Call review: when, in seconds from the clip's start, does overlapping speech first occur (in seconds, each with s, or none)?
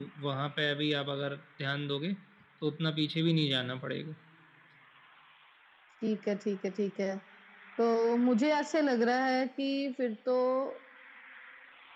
none